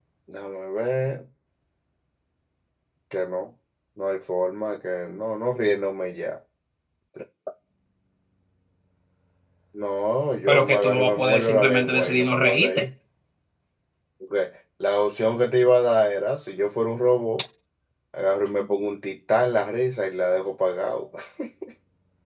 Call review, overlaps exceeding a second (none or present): present